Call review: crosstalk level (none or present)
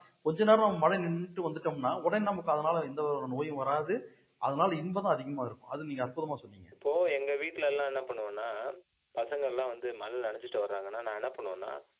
none